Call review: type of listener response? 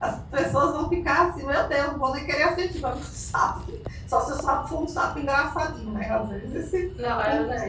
taking over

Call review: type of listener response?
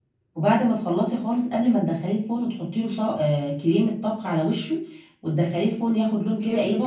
taking over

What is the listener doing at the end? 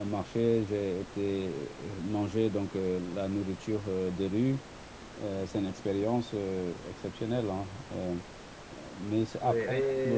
taking over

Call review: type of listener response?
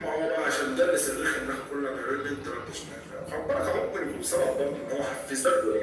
taking over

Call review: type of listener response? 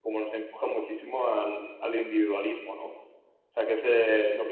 taking over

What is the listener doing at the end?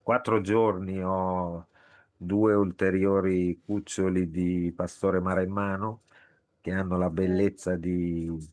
listening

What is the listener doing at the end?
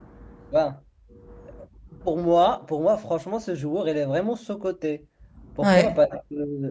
listening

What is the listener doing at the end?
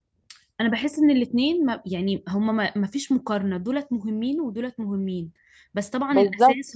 listening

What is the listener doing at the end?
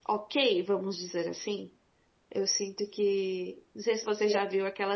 listening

